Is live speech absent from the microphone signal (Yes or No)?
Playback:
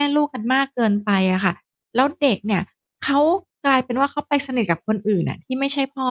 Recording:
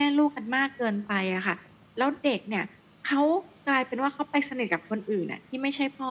Yes